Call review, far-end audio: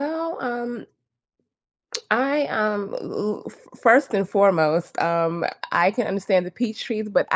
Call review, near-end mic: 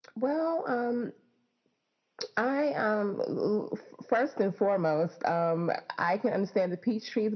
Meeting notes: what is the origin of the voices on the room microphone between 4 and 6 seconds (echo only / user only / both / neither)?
echo only